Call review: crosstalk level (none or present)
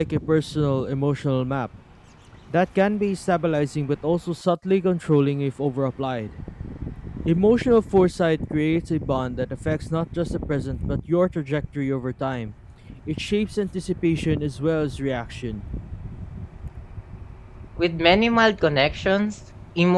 none